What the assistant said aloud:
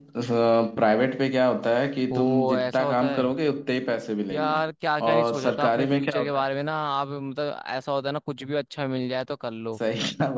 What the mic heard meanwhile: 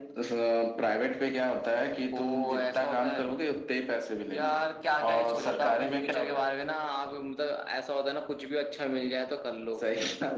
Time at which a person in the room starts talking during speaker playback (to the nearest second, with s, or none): none